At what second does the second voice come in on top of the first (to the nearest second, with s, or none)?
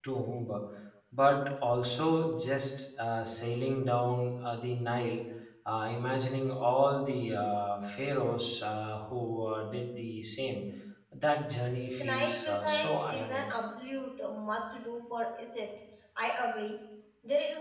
12 s